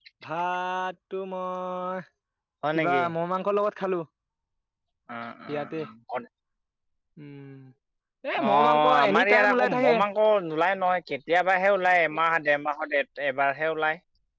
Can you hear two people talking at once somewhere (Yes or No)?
Yes